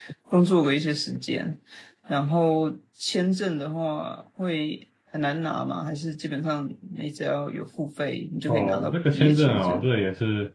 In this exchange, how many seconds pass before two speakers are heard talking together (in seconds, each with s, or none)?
8.5 s